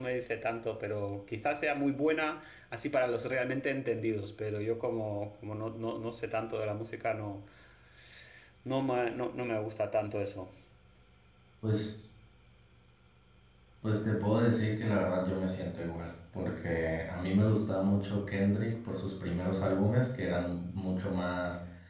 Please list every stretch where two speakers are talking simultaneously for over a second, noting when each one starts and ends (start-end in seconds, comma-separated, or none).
none